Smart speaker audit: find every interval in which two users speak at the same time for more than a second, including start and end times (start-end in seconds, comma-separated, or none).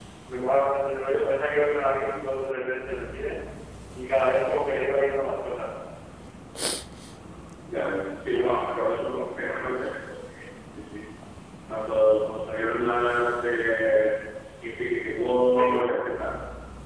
none